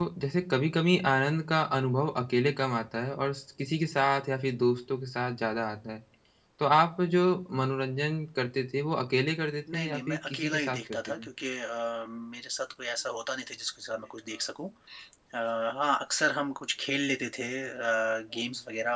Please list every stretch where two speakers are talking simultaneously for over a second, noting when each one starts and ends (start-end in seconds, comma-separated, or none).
9.7-11.3